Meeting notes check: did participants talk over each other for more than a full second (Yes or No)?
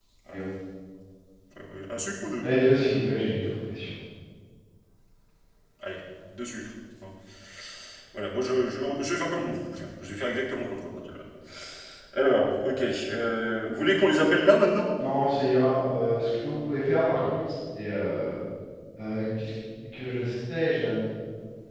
No